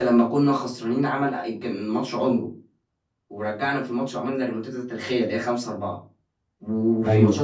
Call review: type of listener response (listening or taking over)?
listening